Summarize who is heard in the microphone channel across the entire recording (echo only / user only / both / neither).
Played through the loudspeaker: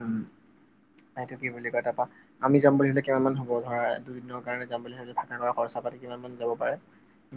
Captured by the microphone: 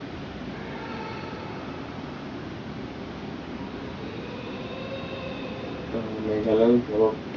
user only